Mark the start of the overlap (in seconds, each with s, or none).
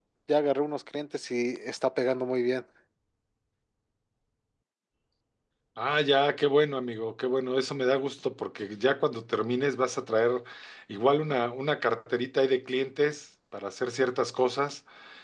none